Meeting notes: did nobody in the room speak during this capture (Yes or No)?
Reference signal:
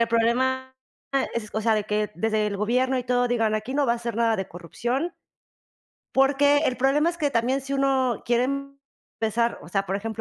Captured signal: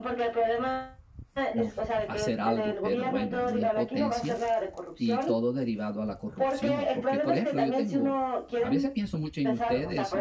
No